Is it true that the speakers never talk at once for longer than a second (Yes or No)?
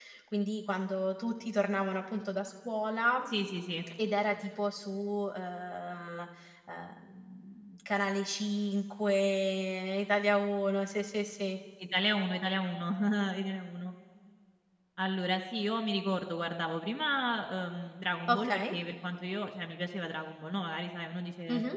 Yes